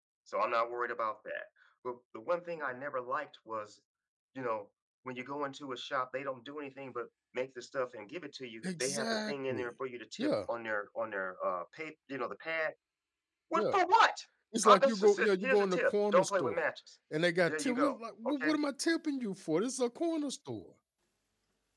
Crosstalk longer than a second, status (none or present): present